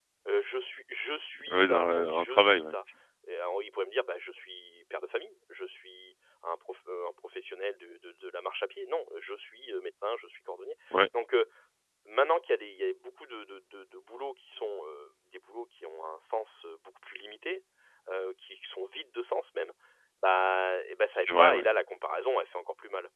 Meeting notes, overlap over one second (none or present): present